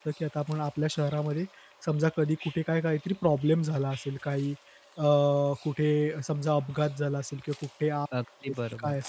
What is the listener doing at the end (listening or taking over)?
listening